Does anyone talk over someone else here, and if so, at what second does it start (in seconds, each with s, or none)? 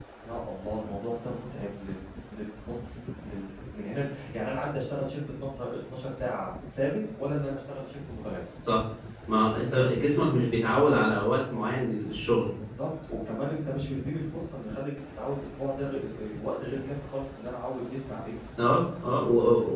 none